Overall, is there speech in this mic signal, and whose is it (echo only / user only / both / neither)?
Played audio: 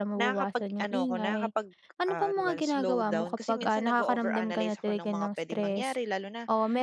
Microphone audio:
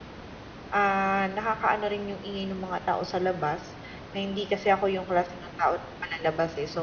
user only